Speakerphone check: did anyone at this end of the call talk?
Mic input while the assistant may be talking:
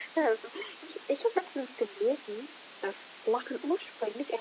No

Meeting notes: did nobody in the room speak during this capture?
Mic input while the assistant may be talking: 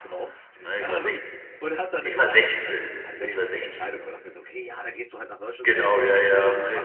No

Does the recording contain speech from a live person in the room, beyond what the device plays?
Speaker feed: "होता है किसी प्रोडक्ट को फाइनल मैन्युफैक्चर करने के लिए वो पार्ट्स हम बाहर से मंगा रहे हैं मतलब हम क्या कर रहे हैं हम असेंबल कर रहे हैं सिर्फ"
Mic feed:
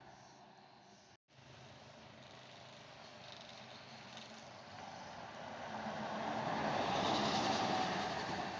No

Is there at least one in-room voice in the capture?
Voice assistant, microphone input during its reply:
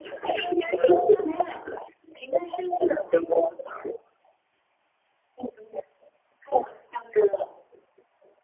No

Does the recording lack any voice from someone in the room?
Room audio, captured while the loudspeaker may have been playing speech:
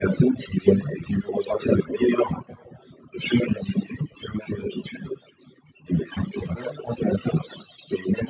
Yes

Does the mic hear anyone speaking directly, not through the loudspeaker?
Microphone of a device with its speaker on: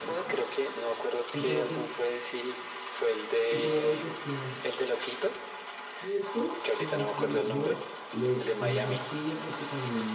Yes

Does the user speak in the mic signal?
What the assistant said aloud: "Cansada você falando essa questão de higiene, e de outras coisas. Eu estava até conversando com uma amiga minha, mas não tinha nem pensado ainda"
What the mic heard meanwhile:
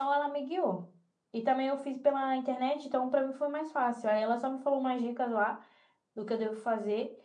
Yes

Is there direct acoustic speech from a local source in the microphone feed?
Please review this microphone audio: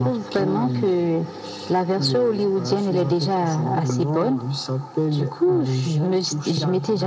No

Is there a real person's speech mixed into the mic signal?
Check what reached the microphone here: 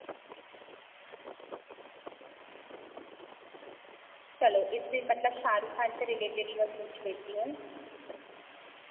Yes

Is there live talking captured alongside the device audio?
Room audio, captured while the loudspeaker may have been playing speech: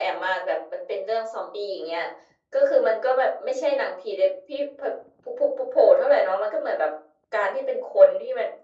No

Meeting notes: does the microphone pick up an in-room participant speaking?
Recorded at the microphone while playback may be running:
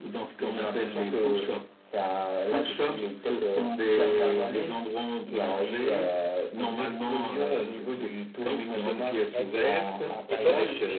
Yes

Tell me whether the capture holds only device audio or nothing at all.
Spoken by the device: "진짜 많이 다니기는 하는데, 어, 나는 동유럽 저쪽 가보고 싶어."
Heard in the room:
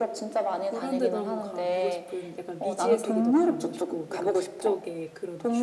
No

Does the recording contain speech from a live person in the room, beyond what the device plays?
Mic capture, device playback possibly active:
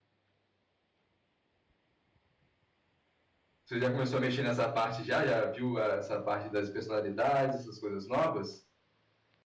Yes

